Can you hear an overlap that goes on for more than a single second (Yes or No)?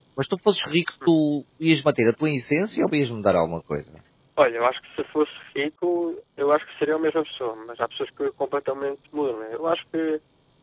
No